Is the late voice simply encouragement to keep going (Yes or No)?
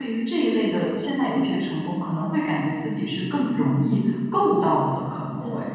No